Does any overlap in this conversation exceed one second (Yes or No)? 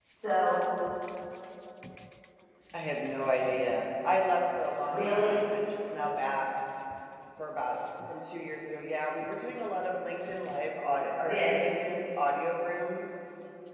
No